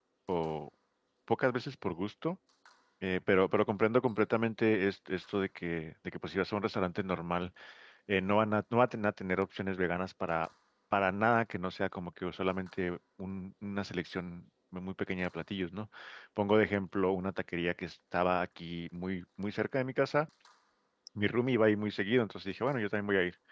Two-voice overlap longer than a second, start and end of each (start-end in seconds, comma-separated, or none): none